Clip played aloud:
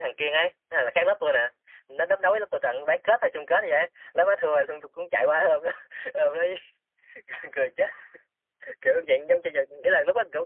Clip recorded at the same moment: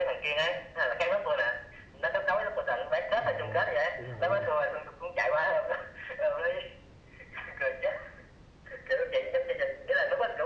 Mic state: both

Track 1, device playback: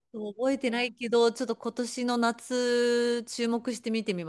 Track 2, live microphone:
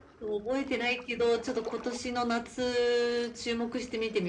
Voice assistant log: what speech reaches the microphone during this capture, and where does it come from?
echo only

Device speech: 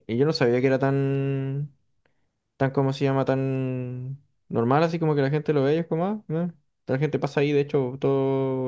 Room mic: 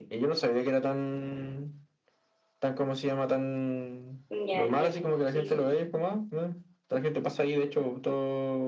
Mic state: both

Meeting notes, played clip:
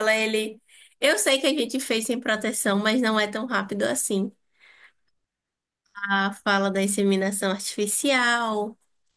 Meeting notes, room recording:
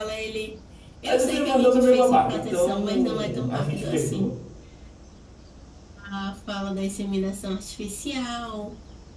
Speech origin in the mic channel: both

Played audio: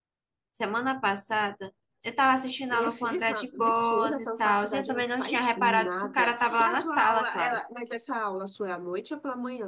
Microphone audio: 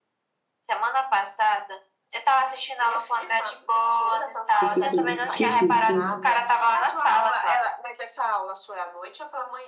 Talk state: both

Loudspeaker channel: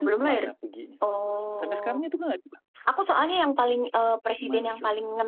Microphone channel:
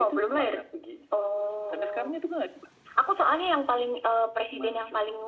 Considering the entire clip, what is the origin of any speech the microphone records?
echo only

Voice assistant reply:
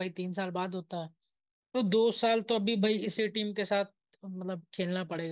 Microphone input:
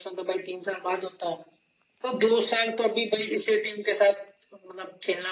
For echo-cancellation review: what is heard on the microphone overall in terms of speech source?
echo only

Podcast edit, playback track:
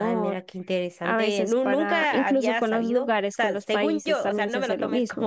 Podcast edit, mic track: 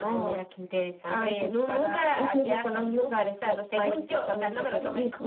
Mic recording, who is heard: echo only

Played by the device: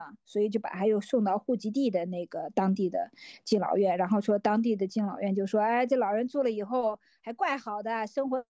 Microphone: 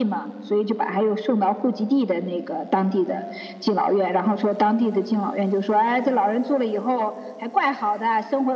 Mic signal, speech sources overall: echo only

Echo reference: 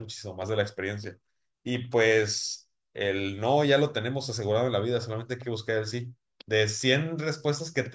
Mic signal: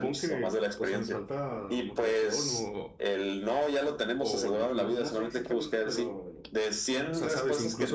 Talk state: both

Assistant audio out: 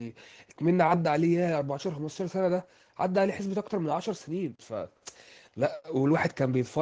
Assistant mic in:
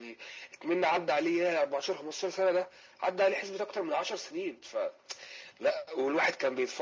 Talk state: echo only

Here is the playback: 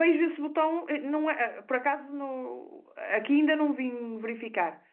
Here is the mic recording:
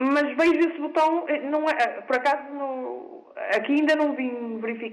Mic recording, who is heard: echo only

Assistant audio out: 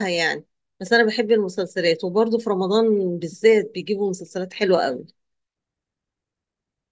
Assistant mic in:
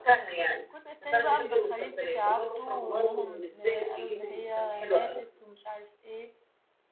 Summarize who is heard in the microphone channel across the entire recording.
both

